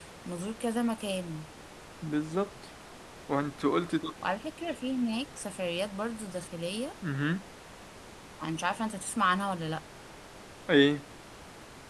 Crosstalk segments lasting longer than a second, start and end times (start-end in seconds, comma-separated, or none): none